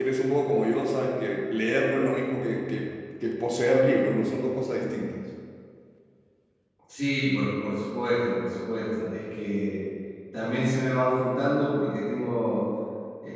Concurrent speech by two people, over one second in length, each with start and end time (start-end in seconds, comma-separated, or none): none